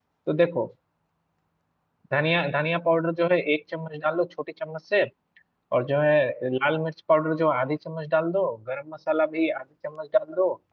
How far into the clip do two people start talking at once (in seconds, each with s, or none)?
none